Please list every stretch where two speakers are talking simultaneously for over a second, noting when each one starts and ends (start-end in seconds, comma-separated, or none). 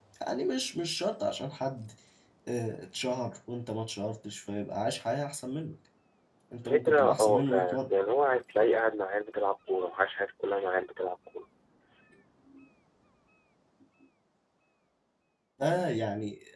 6.7-7.9